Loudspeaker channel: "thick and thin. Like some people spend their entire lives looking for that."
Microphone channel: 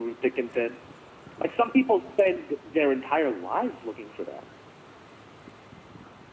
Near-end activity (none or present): none